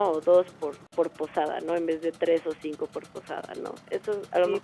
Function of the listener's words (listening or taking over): taking over